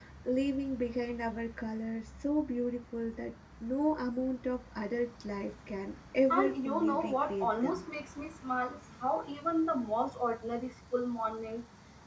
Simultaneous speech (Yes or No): Yes